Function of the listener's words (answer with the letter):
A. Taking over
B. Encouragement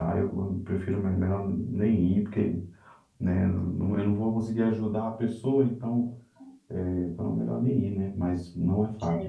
B